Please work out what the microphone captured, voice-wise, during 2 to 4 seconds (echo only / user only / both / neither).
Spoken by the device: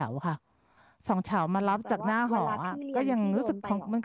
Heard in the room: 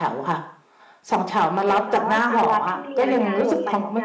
both